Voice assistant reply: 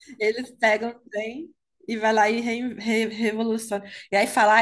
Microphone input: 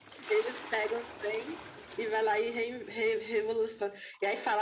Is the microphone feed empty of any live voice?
Yes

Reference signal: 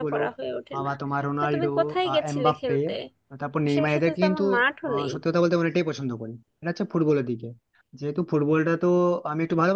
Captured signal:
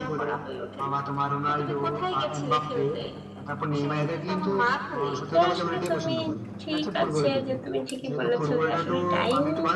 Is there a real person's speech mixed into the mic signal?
Yes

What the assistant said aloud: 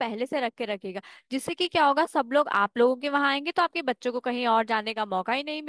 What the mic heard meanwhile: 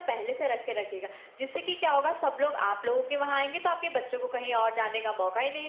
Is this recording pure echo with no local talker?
Yes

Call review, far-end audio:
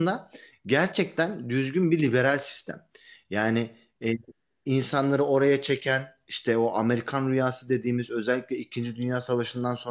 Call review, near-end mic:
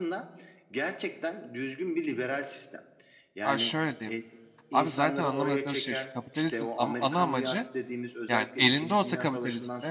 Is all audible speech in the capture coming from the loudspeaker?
No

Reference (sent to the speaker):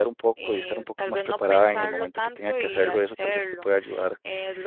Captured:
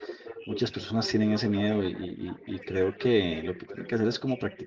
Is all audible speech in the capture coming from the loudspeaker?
No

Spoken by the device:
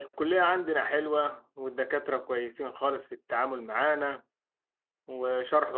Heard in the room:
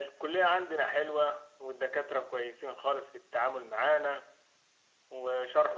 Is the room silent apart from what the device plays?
Yes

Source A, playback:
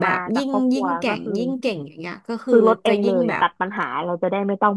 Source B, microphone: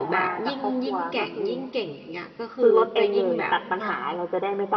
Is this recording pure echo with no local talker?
No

